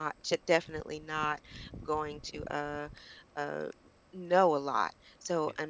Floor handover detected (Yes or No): No